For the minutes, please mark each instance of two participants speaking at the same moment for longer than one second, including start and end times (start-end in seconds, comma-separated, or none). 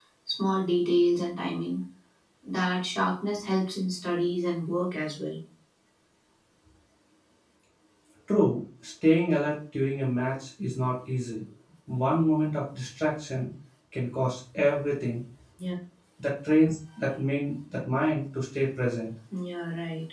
none